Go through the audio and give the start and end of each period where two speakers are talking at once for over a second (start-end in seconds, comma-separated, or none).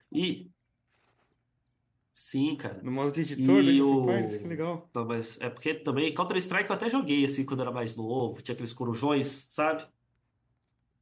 3.4-4.6